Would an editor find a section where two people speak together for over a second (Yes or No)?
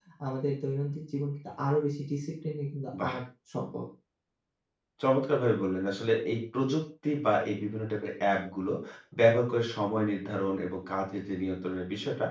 No